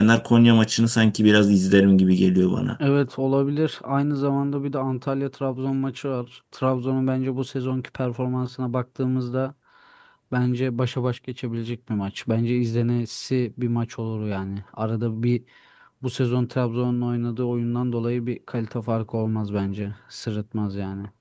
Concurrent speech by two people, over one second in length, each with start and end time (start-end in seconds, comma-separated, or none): none